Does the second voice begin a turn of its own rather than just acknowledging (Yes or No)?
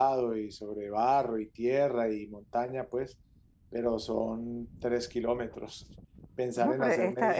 Yes